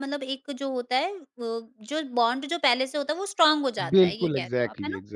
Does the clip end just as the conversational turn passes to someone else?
Yes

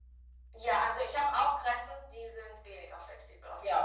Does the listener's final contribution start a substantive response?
Yes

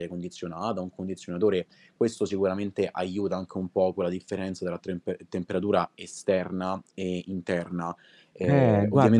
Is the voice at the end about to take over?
Yes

